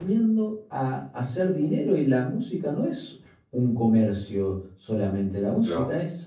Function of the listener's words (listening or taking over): listening